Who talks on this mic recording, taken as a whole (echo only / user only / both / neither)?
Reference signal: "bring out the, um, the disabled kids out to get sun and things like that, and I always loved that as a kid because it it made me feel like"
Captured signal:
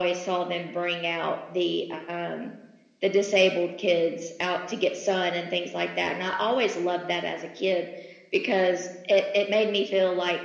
echo only